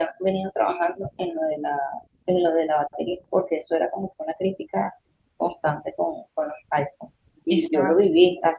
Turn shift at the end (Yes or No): No